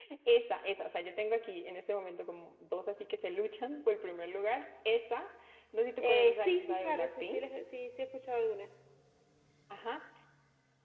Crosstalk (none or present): present